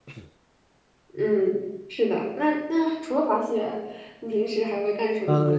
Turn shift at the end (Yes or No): Yes